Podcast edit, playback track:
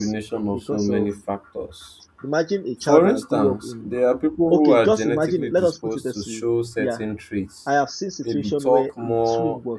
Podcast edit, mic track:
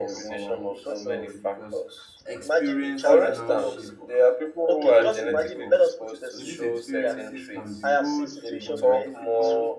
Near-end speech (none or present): present